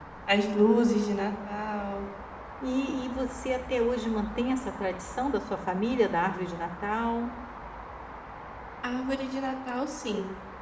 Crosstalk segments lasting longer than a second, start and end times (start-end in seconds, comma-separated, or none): none